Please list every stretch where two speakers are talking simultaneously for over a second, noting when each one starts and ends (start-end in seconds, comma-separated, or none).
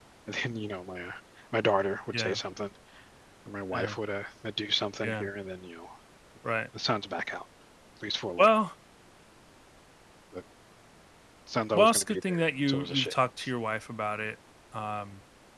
11.7-13.1